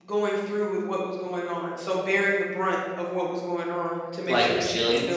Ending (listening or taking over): listening